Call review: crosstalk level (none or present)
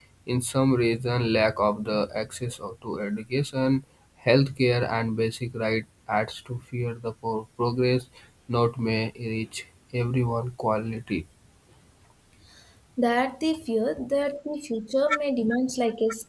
none